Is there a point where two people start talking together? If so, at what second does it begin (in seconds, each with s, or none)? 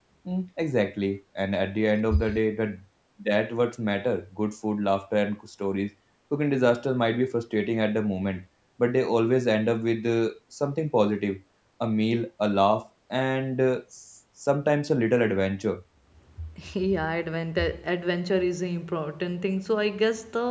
none